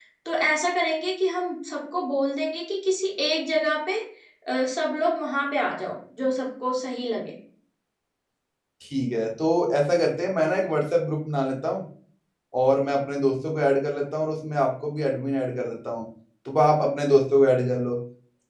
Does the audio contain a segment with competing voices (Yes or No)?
No